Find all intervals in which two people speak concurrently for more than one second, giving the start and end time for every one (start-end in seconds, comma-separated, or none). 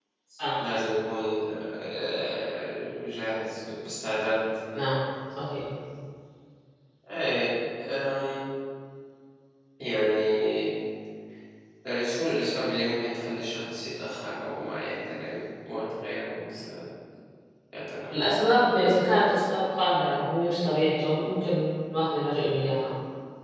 none